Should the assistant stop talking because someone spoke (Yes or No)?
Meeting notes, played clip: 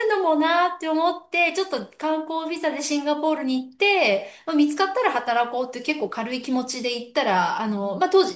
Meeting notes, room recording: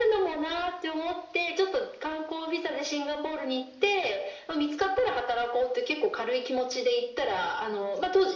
No